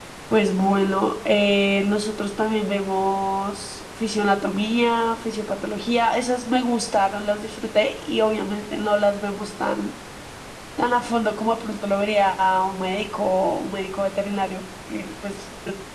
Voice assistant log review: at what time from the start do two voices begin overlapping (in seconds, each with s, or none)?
none